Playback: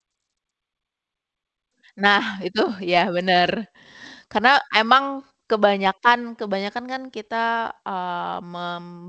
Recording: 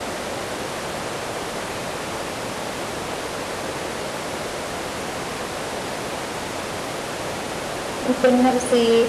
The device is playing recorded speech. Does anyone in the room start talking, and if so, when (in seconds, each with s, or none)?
8.0 s